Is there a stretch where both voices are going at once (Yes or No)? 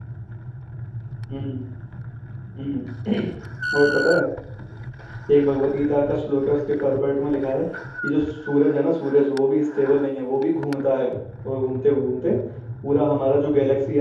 No